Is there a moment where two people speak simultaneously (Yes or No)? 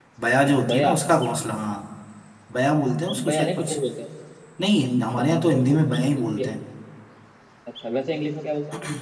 Yes